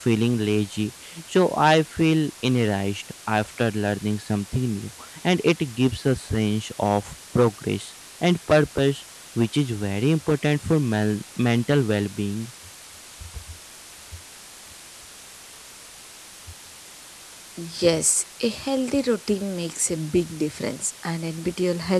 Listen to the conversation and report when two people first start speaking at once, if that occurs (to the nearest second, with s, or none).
none